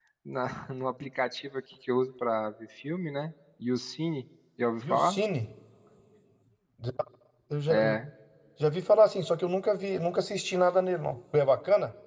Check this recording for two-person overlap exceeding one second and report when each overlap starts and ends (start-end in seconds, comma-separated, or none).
none